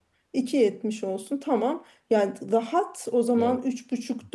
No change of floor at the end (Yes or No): Yes